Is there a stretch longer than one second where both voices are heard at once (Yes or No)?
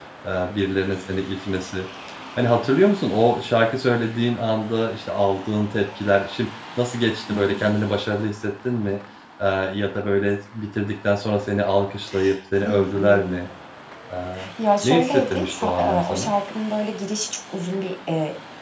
Yes